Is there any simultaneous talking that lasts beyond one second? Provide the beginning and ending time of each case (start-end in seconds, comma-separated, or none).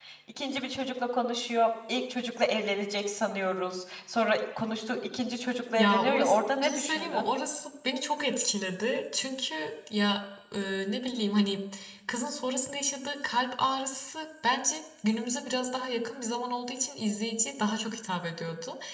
5.8-7.3